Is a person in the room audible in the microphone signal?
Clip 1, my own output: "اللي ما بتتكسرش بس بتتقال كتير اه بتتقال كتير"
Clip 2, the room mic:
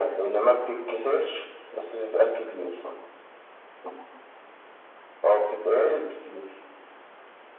No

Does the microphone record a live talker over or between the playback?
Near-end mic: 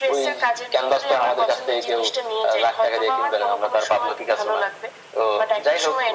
No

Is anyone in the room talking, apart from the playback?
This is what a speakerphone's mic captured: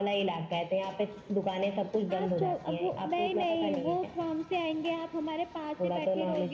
No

